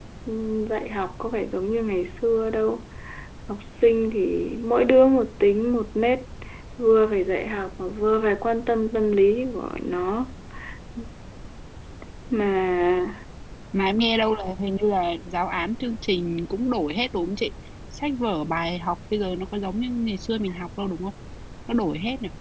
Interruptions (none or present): none